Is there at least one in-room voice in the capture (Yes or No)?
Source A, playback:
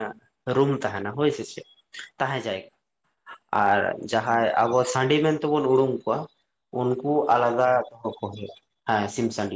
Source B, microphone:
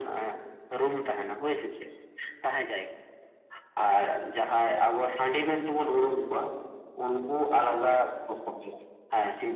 No